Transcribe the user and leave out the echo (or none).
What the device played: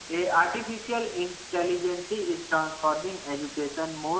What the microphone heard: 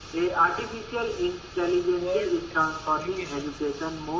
world ex- applications